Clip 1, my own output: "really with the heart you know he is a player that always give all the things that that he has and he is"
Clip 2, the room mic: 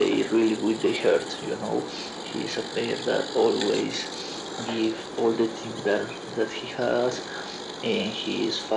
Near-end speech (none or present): none